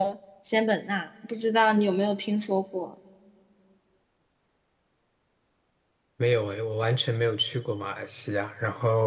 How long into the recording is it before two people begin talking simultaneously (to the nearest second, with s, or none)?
none